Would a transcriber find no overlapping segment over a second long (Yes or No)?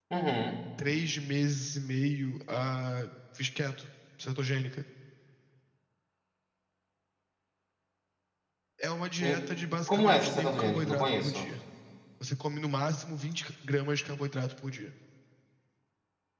No